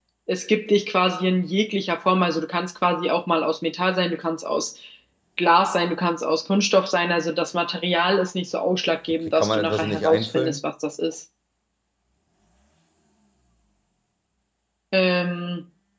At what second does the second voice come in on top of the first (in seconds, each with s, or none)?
9.3 s